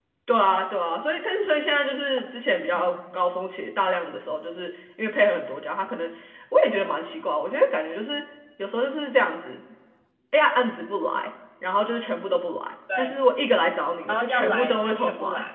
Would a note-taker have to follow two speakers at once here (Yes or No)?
Yes